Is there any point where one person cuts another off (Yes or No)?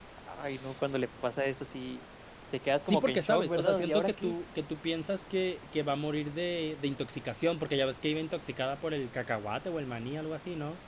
Yes